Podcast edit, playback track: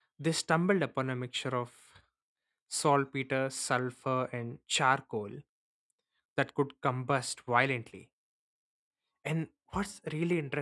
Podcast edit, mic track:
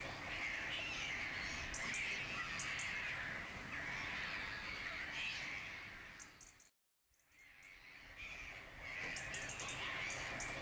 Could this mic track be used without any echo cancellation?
Yes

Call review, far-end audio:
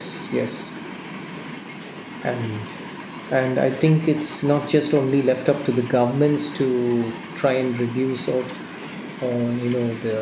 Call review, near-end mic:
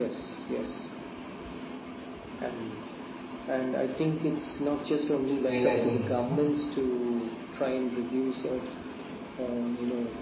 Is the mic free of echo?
No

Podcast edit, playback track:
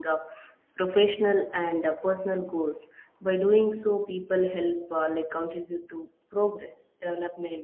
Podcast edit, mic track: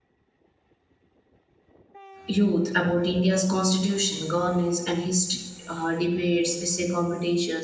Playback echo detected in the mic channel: No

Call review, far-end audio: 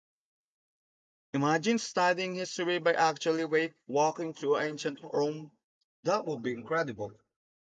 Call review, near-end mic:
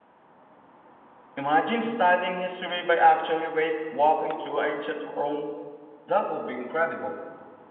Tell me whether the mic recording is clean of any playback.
No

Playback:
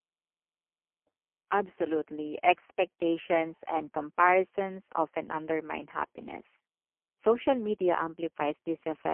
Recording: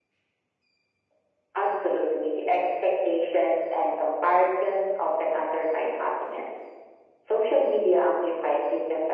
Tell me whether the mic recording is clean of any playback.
No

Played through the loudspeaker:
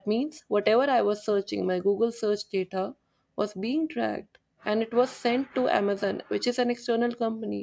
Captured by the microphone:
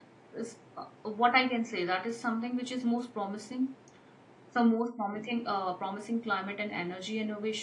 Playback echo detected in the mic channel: No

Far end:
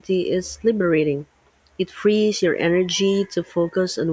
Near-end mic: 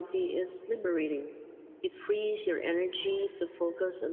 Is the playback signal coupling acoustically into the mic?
Yes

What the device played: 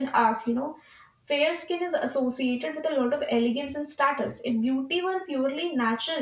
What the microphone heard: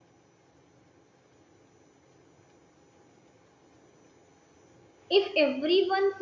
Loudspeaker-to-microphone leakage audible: No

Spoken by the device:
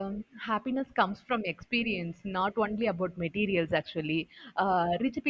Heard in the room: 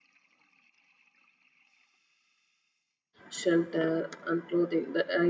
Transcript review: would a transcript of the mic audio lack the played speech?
Yes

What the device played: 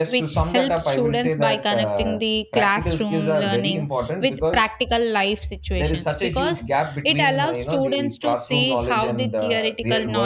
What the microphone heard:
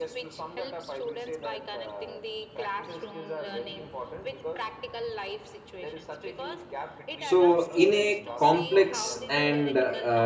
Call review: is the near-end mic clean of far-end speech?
No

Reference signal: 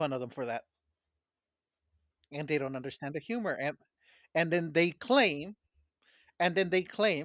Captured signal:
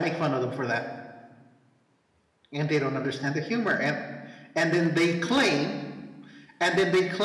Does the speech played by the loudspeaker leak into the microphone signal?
Yes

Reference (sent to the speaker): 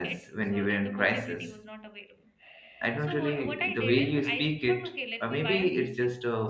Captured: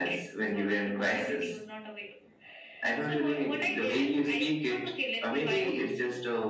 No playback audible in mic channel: No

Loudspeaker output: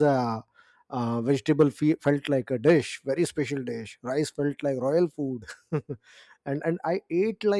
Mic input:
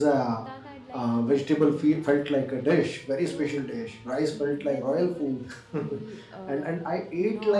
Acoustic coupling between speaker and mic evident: Yes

